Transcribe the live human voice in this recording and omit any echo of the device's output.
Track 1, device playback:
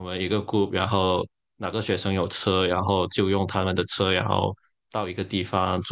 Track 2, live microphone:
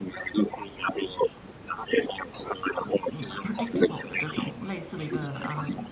嗯 predictable 的这种类似的一个呃

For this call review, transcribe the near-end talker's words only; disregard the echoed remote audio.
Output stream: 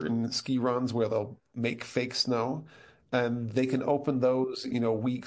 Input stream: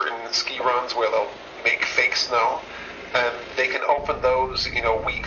none

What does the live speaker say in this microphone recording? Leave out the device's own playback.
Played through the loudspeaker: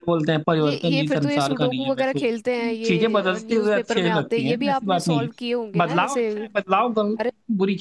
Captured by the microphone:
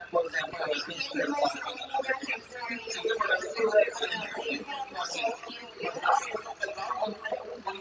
none

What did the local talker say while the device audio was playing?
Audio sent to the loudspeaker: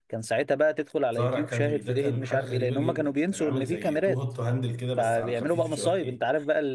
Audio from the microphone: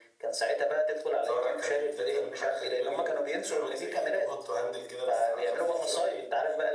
none

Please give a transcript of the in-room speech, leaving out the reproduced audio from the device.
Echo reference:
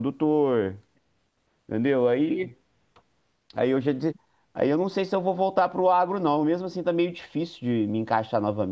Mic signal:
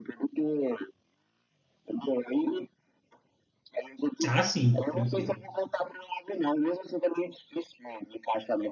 Ah, sim, tranquilo.

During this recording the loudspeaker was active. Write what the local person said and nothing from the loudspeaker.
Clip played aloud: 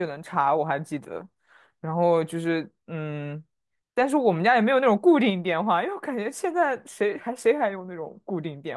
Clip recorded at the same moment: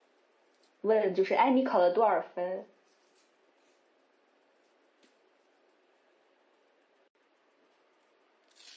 问，就是哎你考了多少分？

